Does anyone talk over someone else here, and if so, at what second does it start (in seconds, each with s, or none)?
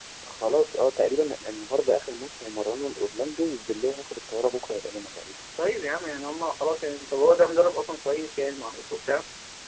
none